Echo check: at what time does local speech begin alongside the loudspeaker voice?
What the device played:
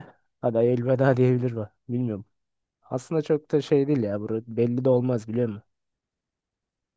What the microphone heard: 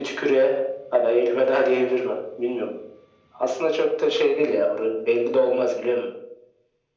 none

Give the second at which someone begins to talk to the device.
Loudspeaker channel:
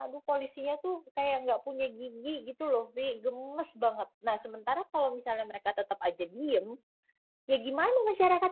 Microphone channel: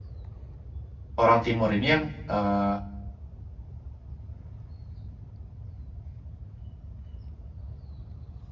1.2 s

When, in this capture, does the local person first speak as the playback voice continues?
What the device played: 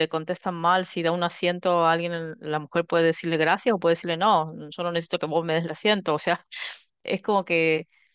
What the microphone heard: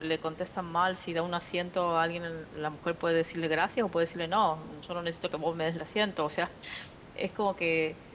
none

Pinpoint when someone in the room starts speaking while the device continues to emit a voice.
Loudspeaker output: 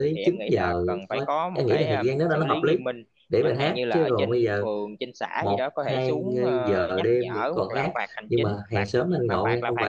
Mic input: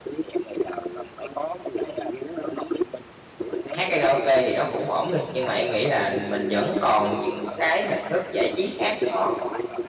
3.7 s

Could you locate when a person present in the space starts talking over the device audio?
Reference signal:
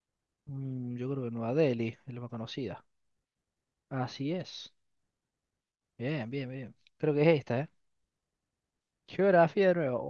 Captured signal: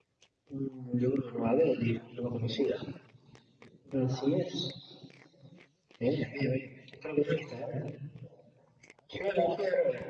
none

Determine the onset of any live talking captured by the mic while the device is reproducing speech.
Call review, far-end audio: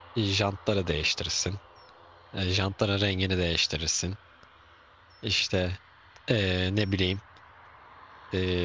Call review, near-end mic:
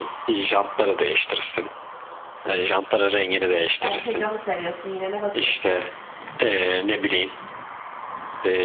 3.8 s

